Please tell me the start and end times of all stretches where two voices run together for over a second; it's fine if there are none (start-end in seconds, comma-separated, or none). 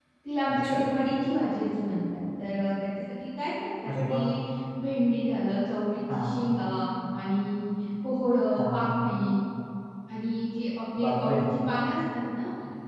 none